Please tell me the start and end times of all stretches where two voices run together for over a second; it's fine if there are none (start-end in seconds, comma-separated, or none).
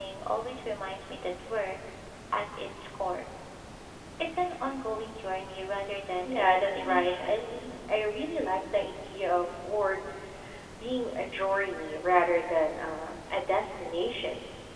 6.2-7.5